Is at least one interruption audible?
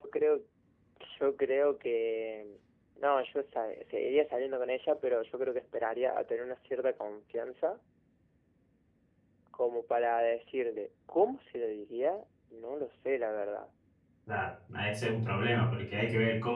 No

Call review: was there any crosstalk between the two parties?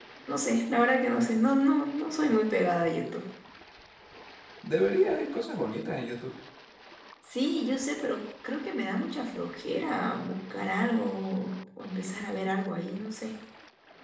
No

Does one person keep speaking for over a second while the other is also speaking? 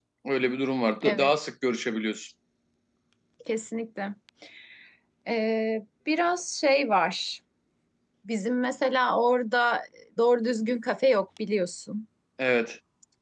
No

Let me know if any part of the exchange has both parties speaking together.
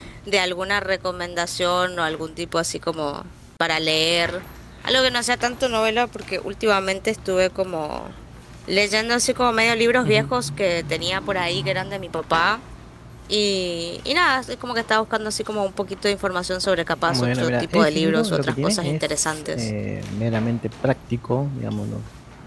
Yes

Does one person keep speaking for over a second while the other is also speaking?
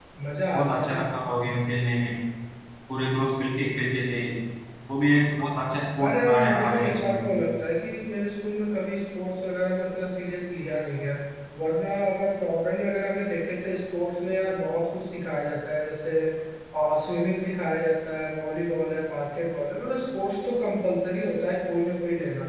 Yes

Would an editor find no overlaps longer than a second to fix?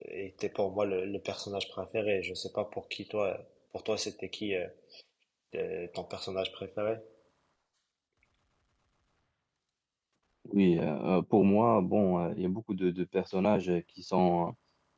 Yes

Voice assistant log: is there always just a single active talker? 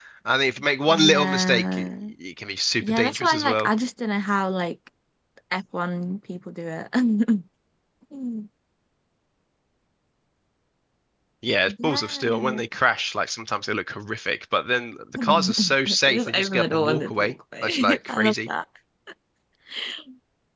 No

